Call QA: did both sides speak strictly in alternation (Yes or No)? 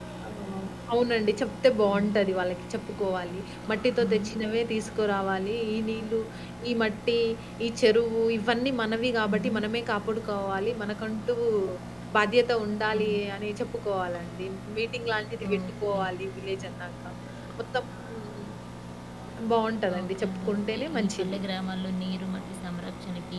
No